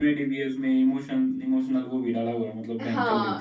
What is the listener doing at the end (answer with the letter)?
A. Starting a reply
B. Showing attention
A